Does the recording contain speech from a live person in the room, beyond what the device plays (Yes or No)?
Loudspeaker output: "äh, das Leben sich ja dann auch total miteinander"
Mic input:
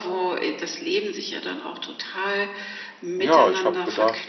Yes